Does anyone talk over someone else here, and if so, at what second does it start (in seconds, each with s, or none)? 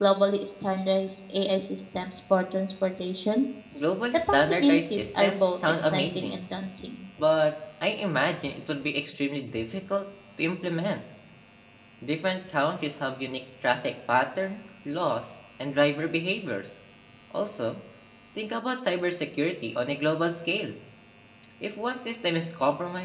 4.1 s